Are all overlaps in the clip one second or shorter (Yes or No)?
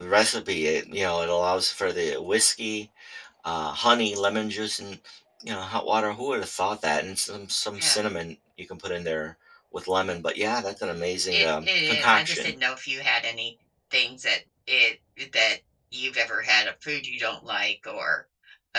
No